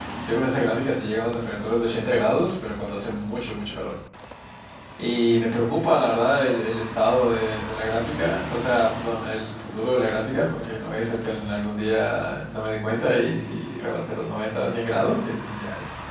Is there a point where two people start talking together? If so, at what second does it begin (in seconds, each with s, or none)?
none